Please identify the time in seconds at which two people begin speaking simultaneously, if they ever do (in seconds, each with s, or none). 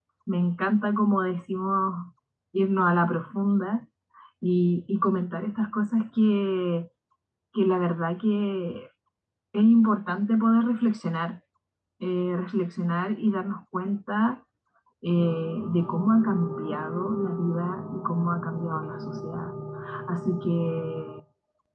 none